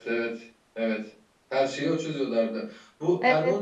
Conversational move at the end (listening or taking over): listening